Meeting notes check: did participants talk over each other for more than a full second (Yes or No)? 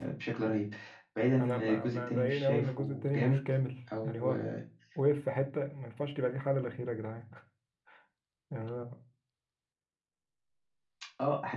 Yes